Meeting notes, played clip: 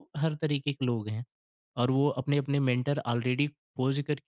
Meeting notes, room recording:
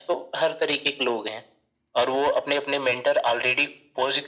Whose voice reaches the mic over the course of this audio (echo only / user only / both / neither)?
echo only